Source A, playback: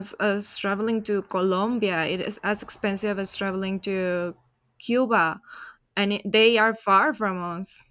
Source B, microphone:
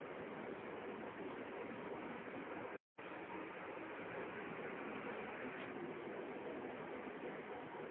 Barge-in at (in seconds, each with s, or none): none